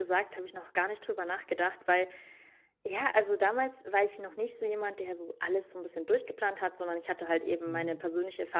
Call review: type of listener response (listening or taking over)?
listening